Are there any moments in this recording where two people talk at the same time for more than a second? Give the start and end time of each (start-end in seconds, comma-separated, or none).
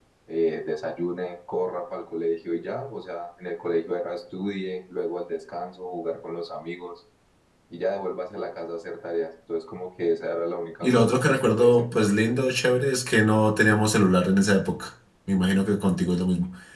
10.8-12.1